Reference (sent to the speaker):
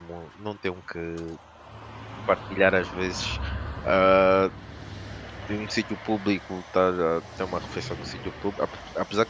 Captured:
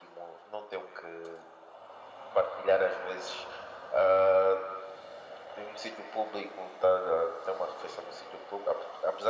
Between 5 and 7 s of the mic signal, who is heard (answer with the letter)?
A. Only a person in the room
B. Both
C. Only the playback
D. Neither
C